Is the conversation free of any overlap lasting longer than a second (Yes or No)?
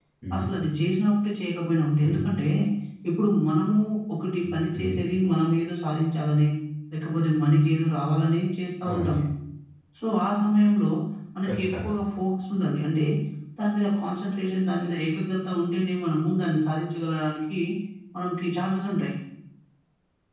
Yes